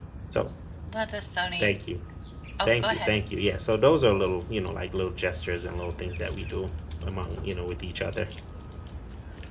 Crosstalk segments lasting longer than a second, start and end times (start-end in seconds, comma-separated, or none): none